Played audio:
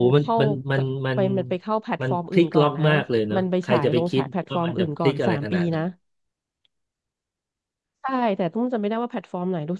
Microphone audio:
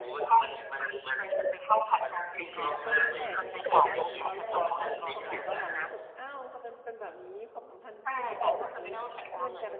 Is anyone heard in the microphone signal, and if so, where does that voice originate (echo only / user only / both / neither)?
both